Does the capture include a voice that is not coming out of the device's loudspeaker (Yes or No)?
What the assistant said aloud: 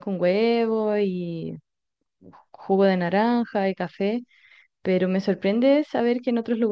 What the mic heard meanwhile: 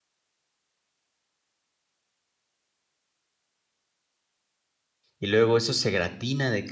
Yes